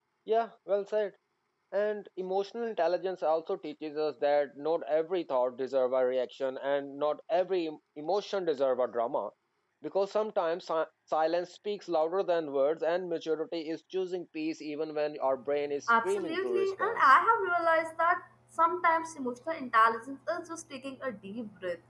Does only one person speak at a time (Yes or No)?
No